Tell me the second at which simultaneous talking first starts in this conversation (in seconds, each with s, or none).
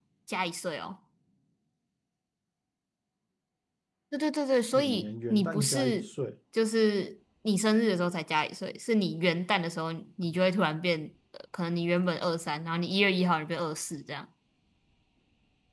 4.7 s